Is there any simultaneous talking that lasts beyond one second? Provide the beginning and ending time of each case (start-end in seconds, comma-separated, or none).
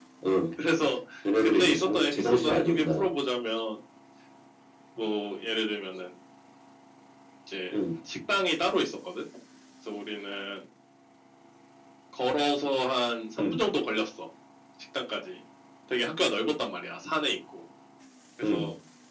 1.6-3.1